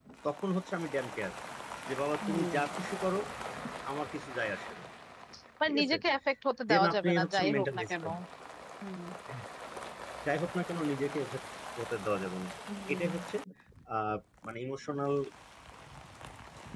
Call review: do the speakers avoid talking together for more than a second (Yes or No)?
No